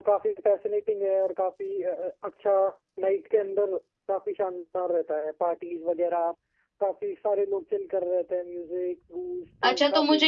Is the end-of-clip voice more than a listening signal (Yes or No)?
Yes